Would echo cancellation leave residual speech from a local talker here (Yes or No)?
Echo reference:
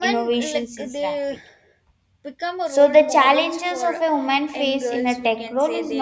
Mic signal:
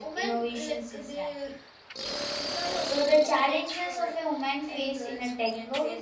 No